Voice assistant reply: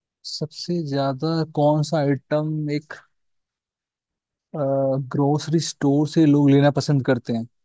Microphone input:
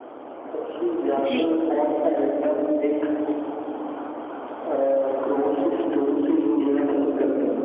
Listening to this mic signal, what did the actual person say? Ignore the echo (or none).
जी